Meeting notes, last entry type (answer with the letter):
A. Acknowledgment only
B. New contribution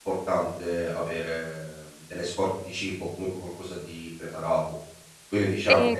A